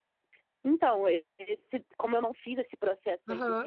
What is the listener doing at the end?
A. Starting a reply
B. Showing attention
B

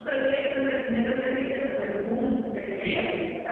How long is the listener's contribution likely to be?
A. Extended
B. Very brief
A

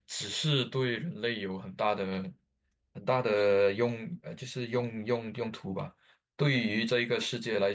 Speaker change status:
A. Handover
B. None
B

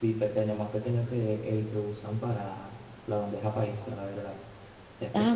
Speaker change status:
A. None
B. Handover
B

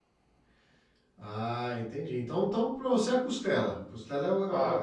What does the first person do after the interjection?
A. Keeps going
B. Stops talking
B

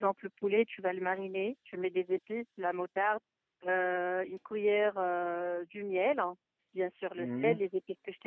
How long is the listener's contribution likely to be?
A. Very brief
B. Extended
A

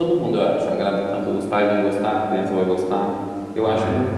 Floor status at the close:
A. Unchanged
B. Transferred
A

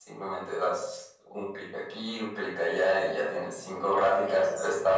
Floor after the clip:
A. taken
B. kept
B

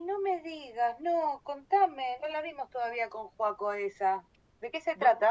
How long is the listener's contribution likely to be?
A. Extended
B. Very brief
A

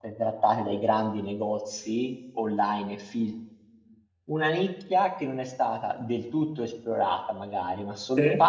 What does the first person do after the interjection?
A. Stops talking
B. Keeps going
B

